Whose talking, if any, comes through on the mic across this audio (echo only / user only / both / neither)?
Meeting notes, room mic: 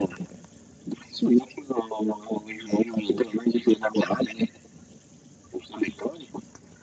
echo only